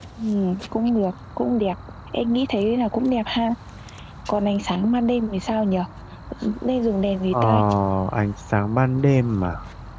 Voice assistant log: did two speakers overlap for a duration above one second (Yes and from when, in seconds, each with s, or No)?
No